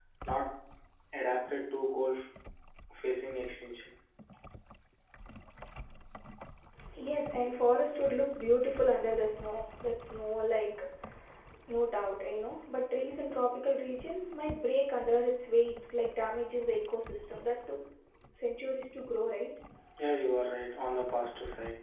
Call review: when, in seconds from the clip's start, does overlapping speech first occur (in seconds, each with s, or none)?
none